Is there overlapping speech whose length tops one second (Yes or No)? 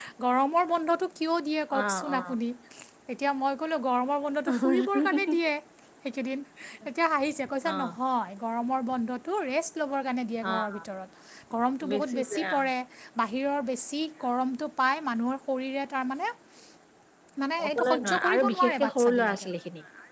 Yes